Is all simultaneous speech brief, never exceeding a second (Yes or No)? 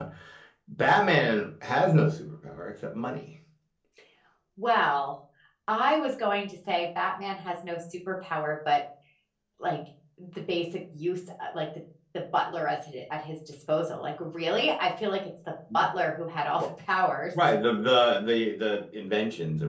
Yes